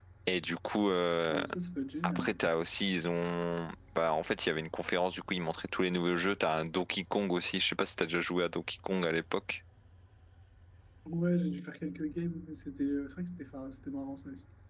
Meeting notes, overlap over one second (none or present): none